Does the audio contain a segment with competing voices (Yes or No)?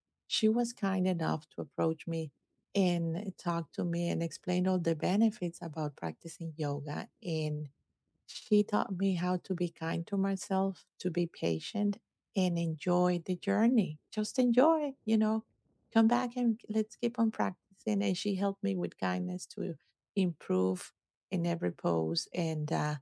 No